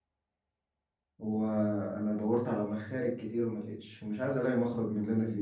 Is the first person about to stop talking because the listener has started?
Yes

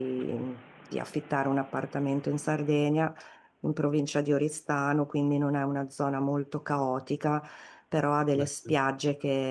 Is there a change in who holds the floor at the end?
No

